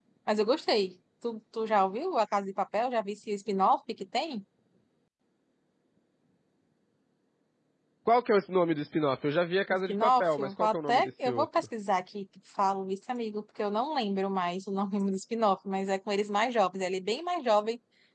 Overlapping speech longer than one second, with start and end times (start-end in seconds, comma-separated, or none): 9.9-11.7